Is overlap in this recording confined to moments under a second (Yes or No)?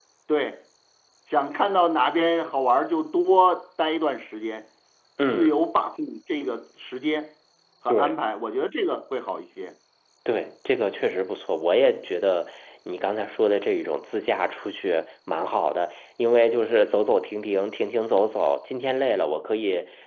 Yes